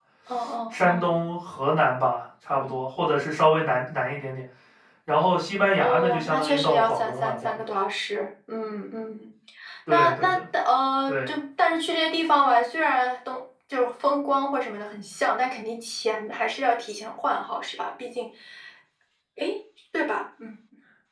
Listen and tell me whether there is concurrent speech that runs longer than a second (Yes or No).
Yes